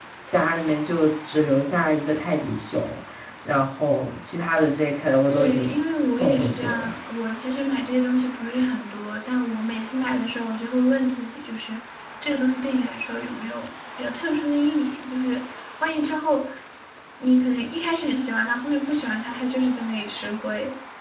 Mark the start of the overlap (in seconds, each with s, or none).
5.3 s